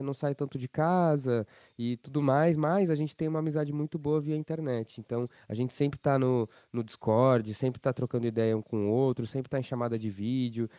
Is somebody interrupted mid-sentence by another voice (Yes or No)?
No